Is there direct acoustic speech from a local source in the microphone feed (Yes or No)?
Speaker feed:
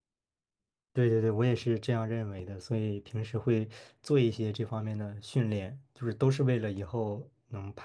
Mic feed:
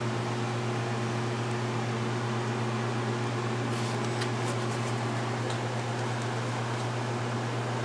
No